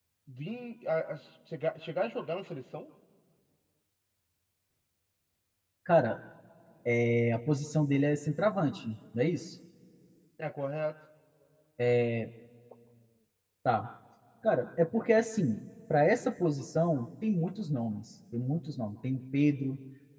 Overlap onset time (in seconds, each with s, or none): none